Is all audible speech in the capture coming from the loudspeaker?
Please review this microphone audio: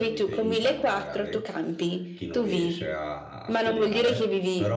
No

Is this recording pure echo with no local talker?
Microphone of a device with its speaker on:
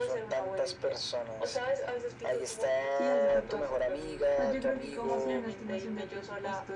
No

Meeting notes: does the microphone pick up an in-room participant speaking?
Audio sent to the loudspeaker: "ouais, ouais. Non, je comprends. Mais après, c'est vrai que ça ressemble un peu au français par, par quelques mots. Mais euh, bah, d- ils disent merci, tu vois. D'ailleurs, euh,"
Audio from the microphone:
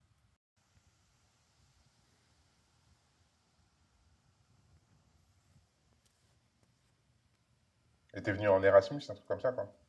Yes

